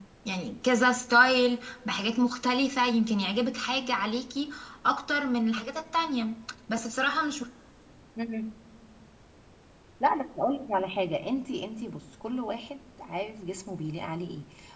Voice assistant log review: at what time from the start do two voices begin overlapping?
none

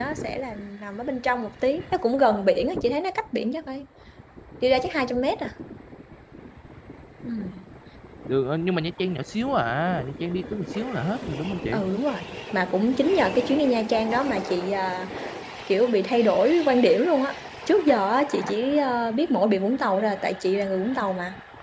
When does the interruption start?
none

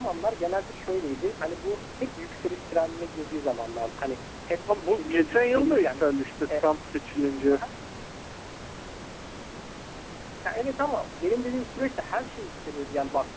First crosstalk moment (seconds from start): 4.7 s

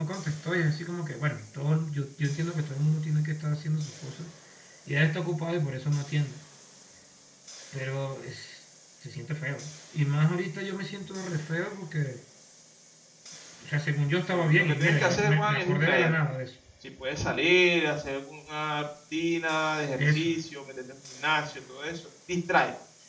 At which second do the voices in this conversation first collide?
14.3 s

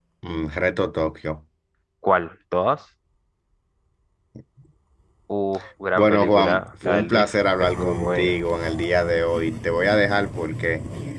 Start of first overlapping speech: 6.0 s

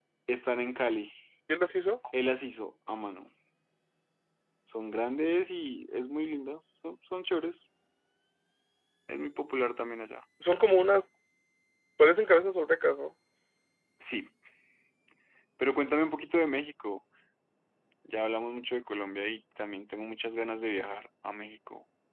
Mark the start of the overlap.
none

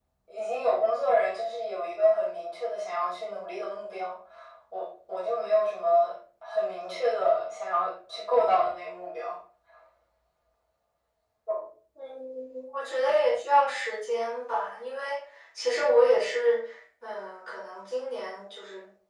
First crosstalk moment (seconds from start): none

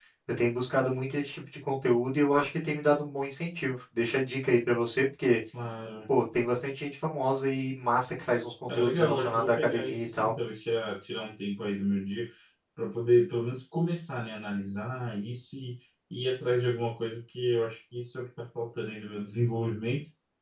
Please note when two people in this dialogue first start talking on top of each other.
8.7 s

